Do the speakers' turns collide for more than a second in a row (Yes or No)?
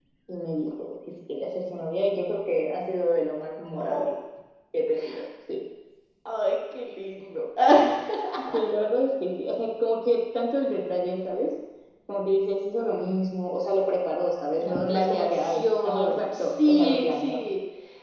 Yes